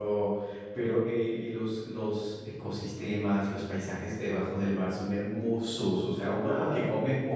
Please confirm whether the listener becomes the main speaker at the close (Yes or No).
No